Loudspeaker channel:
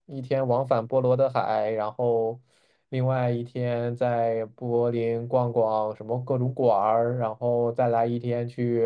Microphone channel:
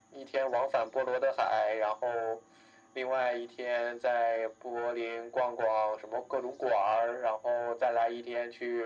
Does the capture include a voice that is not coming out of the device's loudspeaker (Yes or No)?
No